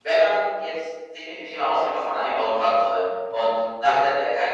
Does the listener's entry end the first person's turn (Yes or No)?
No